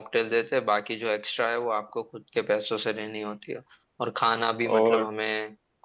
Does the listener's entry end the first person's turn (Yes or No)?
No